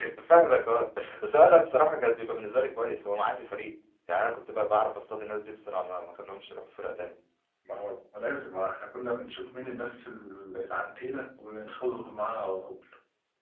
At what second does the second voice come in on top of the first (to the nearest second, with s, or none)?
none